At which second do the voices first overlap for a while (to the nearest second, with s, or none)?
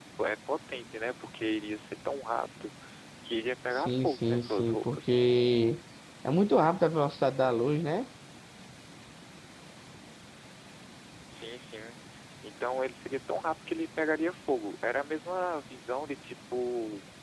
4 s